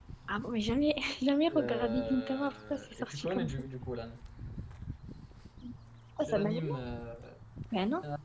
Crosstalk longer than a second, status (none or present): present